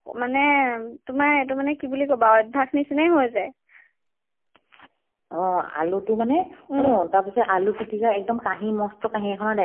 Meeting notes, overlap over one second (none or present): none